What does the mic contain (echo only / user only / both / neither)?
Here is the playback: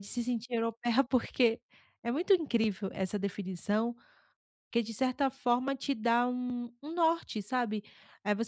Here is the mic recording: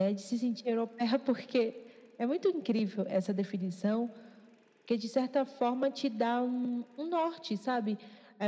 echo only